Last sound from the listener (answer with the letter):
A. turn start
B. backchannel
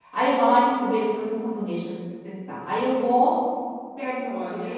B